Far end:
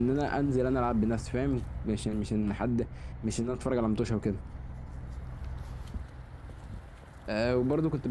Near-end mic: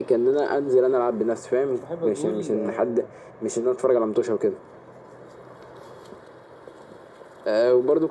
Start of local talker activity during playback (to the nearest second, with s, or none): 2 s